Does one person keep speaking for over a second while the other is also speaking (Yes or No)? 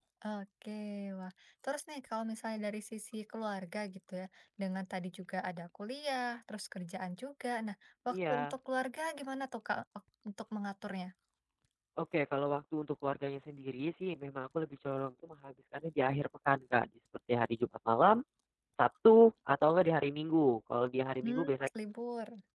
No